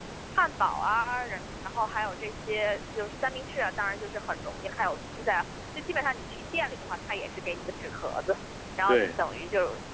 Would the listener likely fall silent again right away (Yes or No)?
Yes